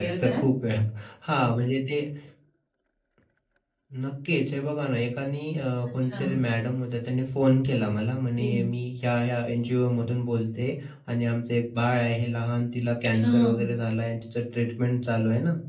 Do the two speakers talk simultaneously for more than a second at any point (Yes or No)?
No